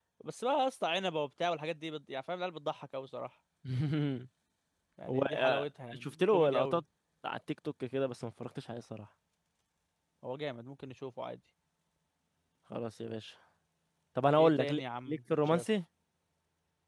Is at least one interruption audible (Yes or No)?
Yes